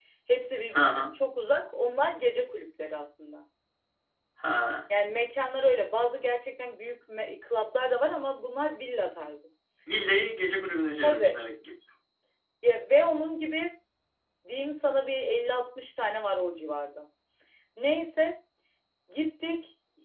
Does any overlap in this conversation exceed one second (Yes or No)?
No